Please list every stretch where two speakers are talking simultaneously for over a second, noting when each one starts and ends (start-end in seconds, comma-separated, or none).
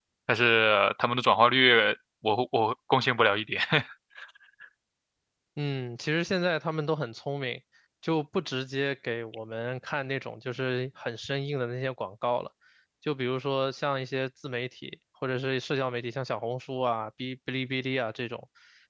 none